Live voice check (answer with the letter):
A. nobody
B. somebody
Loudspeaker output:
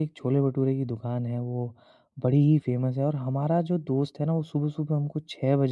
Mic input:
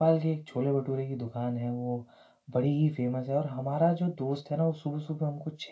A